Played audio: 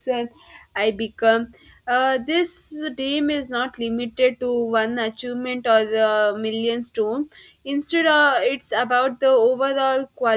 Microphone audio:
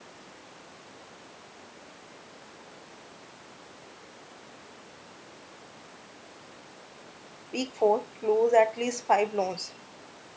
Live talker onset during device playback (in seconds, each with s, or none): 7.5 s